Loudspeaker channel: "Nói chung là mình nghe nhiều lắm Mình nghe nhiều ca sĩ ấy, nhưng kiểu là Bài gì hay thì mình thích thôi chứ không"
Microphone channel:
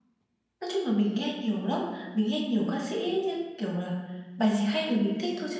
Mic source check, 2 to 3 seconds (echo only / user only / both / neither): echo only